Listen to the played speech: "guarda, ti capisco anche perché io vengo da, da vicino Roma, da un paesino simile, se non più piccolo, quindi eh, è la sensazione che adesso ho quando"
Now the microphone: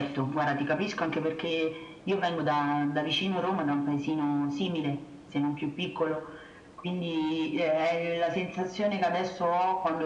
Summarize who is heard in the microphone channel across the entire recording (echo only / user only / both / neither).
echo only